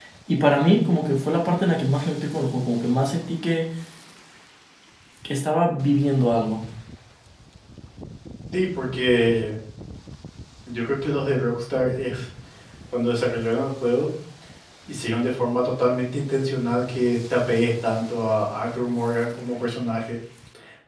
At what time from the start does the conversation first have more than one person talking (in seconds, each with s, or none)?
none